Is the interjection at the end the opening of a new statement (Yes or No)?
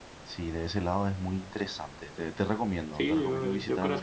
Yes